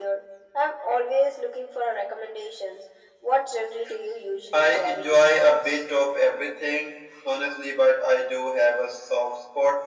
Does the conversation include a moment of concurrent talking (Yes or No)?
Yes